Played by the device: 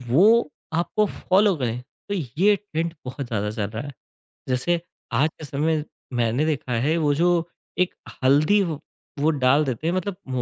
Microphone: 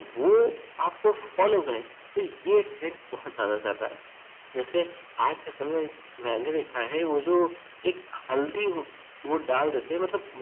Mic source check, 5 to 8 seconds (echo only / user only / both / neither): echo only